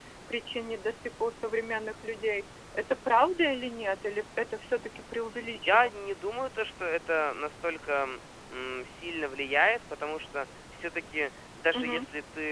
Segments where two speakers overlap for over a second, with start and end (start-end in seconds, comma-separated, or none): none